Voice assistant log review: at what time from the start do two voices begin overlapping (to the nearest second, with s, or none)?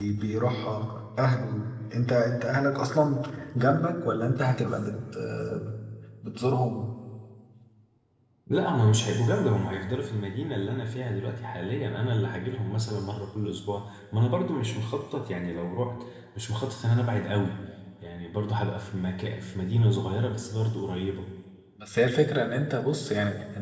none